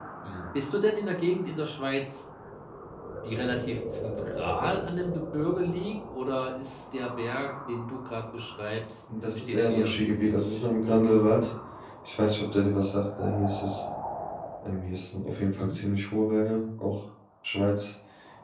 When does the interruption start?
9 s

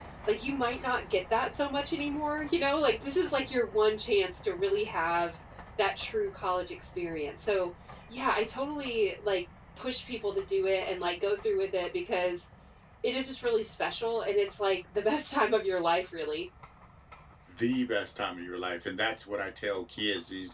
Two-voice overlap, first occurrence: none

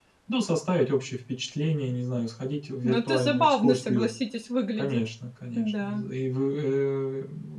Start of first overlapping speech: 3 s

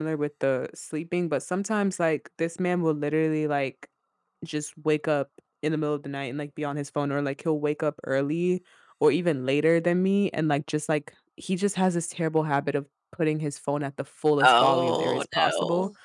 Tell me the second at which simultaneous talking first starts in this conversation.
14 s

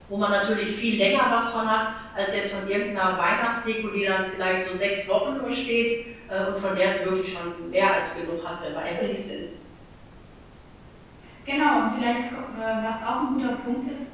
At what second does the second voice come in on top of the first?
none

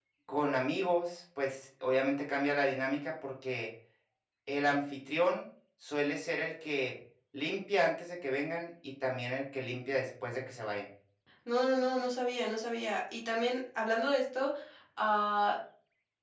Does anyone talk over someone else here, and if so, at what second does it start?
none

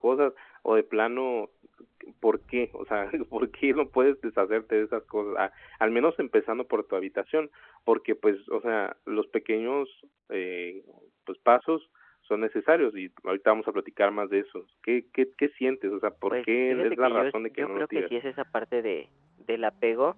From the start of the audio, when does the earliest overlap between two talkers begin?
16 s

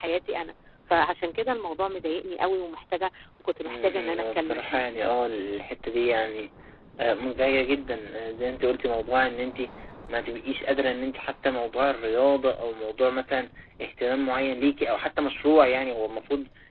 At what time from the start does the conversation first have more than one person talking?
4 s

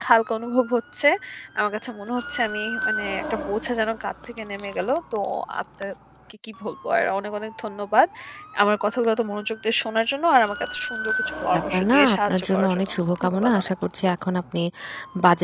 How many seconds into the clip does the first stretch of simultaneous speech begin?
12 s

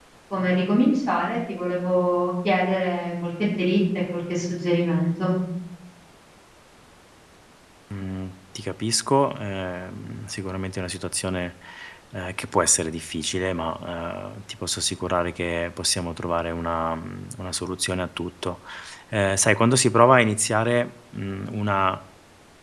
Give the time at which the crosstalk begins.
none

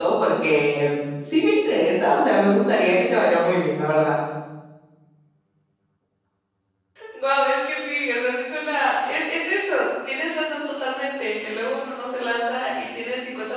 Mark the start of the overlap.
none

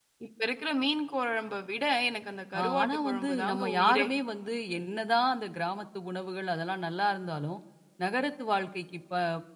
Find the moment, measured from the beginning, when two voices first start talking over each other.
3 s

